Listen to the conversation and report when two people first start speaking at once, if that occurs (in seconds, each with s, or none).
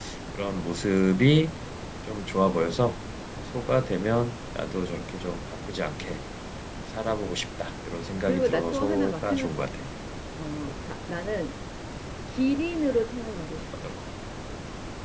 8.2 s